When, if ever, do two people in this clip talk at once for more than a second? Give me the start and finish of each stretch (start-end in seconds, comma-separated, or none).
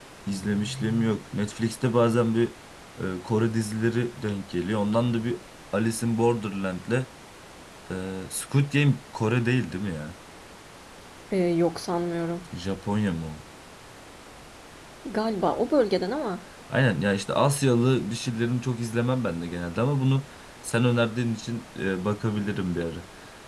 none